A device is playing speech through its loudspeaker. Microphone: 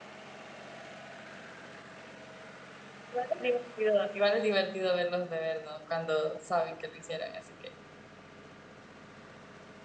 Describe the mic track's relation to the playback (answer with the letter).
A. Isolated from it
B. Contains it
A